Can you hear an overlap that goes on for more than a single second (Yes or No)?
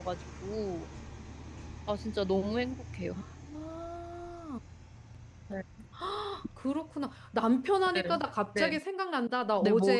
No